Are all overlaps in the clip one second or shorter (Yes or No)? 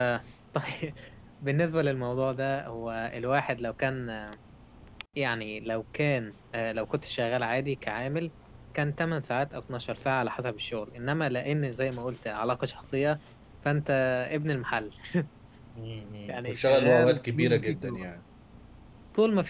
No